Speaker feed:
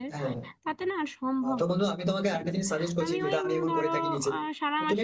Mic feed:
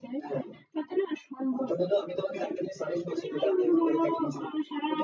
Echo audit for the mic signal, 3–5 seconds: echo only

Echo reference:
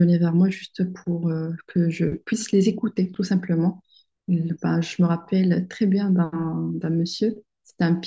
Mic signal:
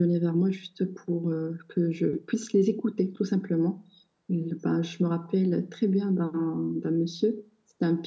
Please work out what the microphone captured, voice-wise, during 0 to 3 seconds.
echo only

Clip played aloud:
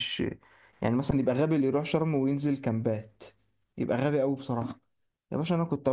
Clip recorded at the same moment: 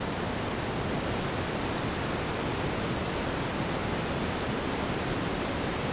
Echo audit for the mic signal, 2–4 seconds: neither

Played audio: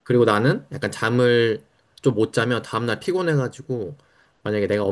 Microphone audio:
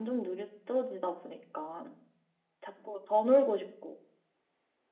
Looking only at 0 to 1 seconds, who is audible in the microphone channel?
user only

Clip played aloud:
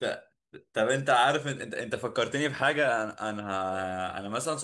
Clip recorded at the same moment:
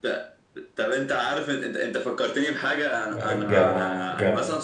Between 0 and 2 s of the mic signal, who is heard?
echo only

